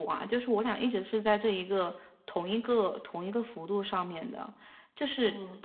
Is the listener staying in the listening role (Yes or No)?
Yes